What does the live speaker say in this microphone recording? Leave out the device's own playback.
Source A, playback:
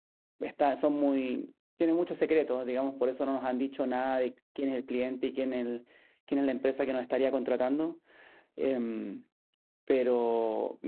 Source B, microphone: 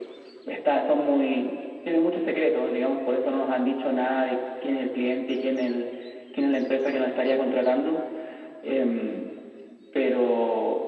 none

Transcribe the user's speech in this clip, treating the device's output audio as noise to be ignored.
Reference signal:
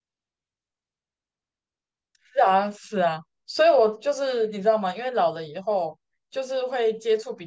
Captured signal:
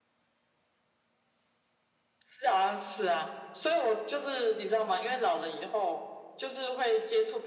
none

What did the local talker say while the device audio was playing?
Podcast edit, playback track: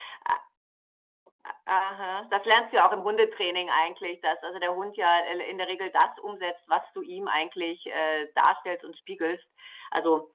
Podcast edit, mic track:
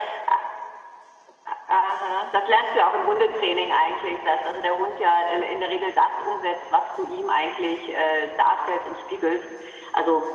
none

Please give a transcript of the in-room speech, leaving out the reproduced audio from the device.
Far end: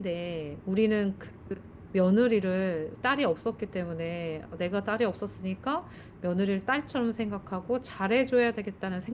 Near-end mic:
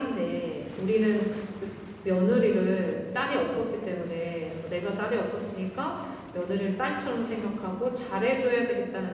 none

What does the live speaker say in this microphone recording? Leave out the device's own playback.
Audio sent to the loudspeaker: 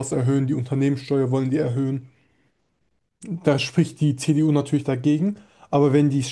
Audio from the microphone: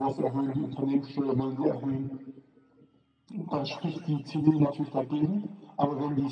none

